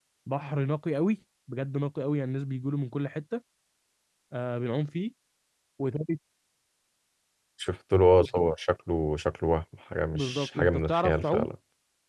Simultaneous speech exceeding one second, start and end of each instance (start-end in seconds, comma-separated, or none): 10.1-11.5